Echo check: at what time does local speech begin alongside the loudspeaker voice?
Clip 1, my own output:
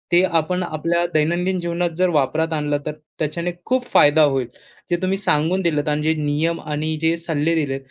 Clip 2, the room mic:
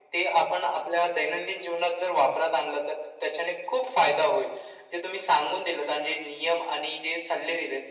none

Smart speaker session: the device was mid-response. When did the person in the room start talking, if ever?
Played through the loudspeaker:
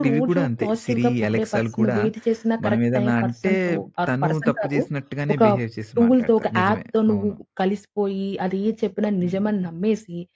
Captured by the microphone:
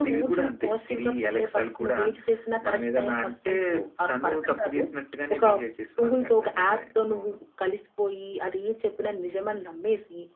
none

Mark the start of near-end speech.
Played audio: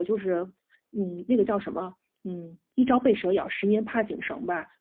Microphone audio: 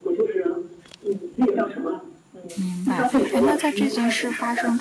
2.6 s

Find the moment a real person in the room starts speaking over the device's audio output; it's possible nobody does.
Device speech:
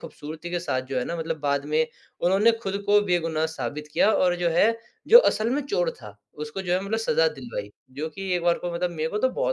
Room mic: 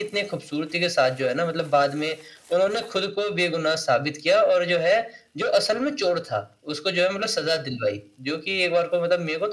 none

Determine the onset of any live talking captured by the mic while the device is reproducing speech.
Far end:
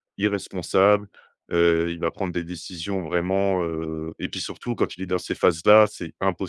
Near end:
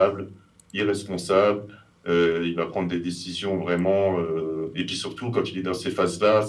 none

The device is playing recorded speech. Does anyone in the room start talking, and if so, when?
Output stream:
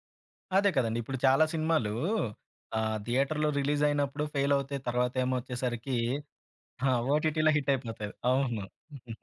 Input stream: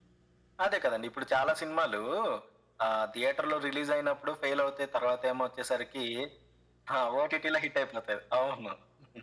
none

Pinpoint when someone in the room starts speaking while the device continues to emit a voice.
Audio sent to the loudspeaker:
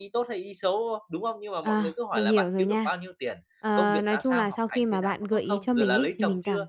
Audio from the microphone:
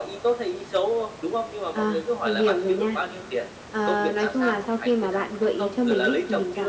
none

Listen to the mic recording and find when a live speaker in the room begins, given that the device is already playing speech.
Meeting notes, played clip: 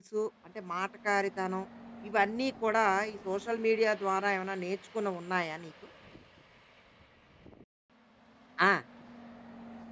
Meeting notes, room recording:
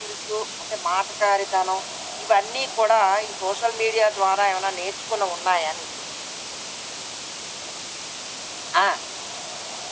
none

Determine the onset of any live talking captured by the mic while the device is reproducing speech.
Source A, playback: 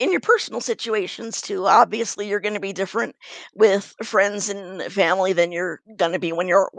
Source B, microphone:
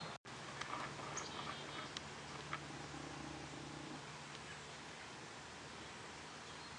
none

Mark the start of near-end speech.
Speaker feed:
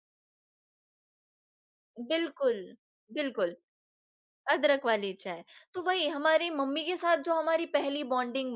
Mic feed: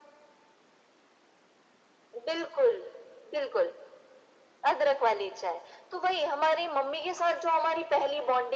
none

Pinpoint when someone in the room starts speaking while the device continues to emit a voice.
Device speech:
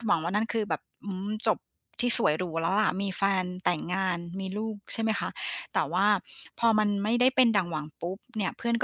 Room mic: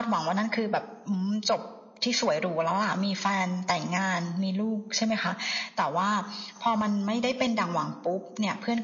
none

